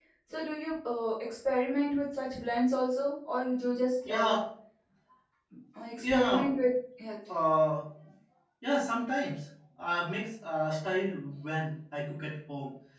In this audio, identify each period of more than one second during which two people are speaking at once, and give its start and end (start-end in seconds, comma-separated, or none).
none